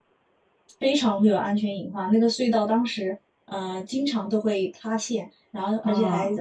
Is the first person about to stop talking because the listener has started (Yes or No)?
No